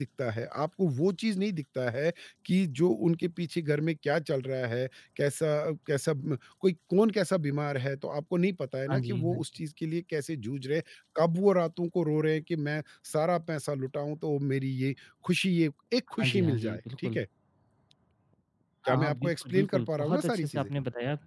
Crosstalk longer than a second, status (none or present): present